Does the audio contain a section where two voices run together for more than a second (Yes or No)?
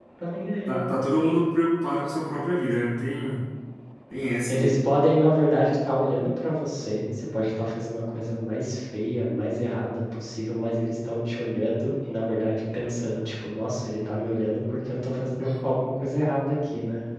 No